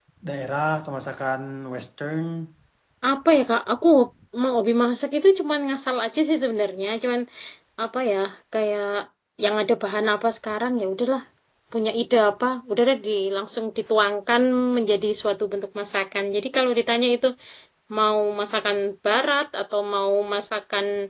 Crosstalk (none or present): none